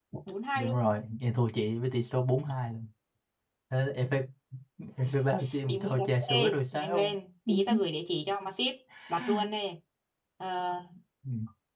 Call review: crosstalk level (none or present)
present